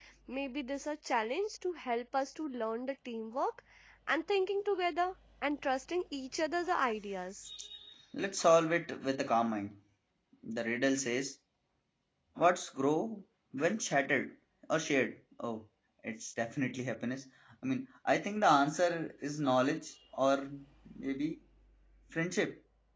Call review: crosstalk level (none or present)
none